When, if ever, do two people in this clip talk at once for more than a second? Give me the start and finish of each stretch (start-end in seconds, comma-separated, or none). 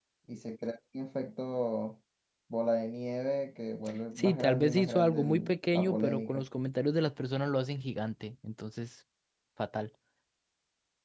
4.2-6.5